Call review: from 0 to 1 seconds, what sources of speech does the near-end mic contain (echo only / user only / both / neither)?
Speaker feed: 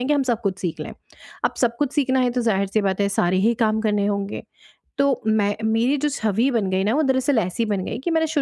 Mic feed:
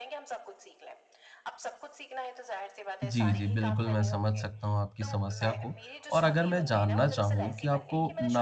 echo only